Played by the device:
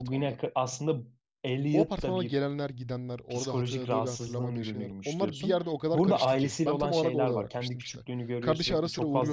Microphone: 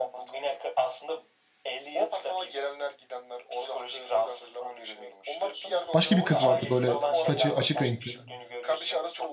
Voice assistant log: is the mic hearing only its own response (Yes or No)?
No